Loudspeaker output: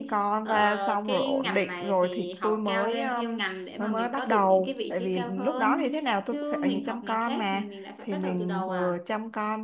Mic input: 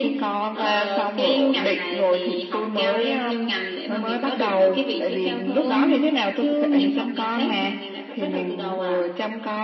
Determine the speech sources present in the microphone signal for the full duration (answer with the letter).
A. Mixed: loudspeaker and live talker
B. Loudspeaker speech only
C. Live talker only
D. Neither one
B